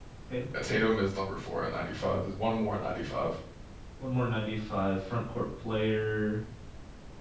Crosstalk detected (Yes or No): No